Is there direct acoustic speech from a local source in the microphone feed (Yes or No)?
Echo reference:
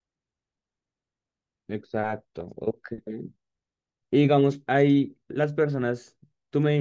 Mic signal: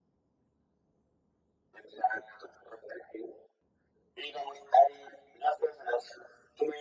No